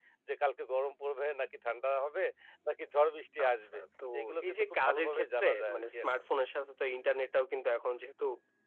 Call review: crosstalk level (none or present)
present